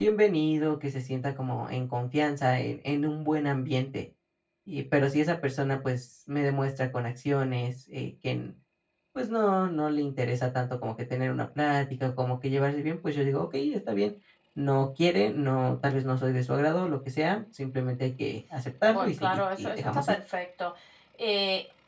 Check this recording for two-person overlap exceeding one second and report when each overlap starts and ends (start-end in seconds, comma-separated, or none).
18.9-20.1